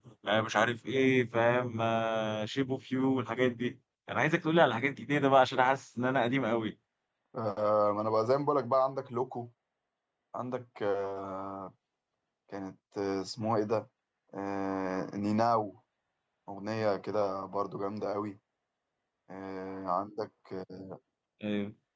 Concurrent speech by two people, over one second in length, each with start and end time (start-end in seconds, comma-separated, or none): none